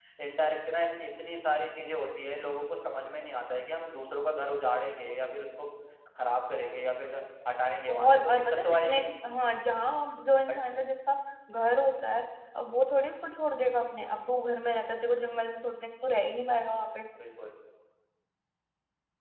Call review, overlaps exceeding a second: present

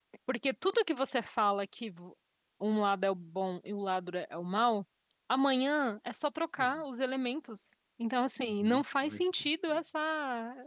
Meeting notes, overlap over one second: present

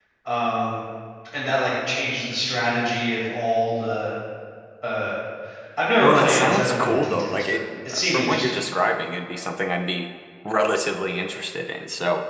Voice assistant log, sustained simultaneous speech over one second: present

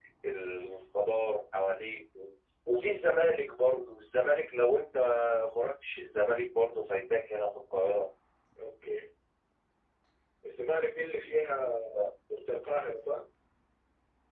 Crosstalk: none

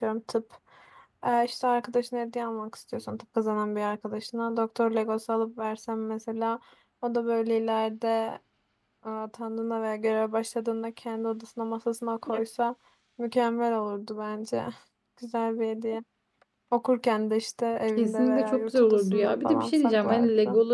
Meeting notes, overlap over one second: present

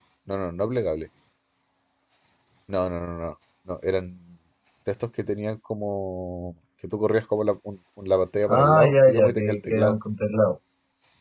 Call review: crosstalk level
present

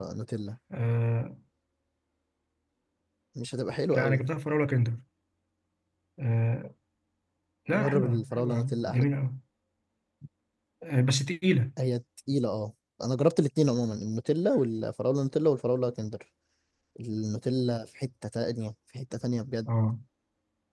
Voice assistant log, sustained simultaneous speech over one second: present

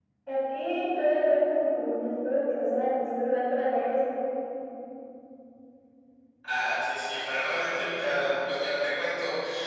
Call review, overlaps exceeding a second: none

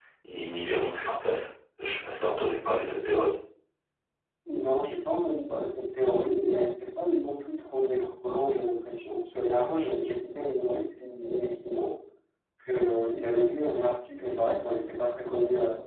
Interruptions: none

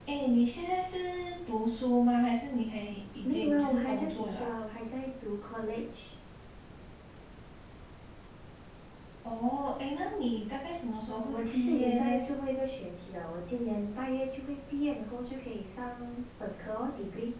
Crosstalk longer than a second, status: present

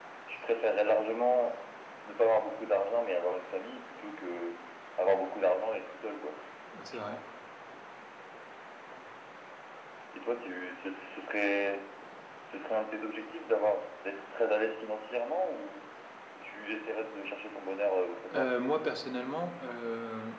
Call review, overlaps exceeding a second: none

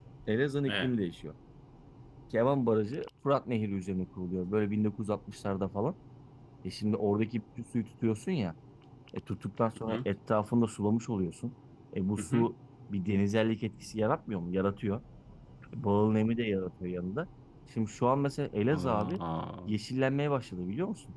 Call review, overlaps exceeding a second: none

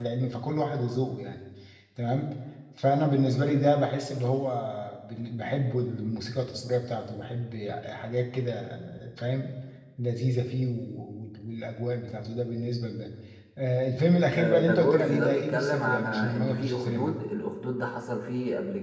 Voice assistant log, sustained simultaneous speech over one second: present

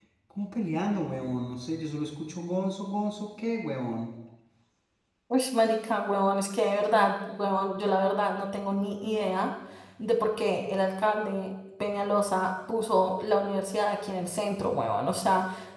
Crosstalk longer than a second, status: none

